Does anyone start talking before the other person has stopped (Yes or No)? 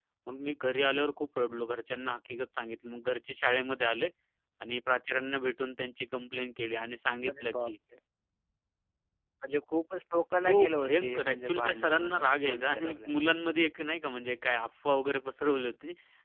Yes